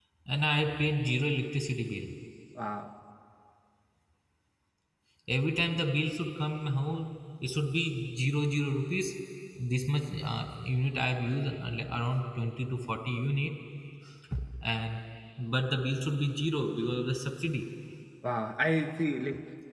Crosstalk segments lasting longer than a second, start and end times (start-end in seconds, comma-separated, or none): none